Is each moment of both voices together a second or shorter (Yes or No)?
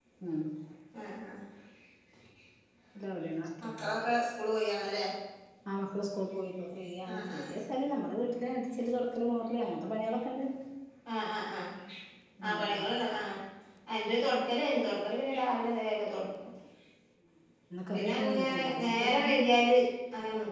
No